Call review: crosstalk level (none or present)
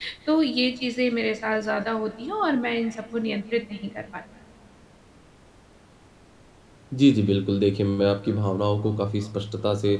none